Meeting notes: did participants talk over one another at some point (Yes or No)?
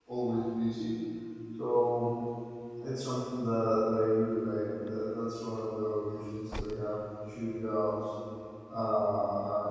No